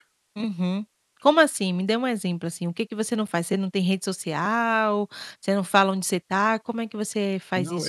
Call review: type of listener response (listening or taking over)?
taking over